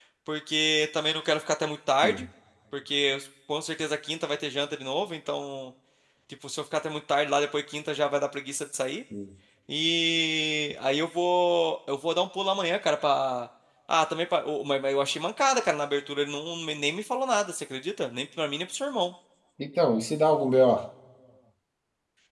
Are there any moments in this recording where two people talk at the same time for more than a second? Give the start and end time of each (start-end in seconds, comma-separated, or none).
none